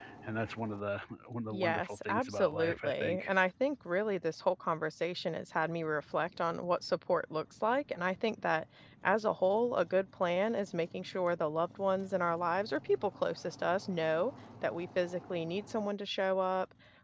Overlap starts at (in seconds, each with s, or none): 1.5 s